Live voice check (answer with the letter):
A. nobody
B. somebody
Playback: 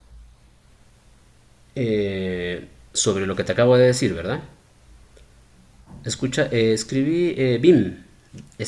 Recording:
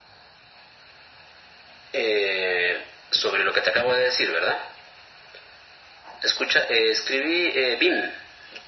A